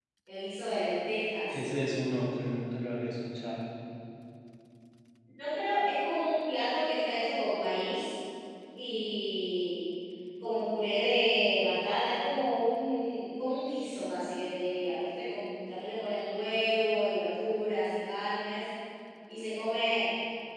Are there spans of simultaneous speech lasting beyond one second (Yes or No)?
No